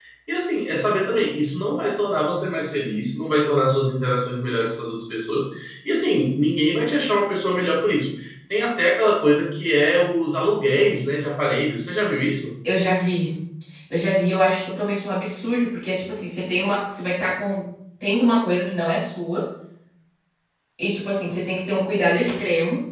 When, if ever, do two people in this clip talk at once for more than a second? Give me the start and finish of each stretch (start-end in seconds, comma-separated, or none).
none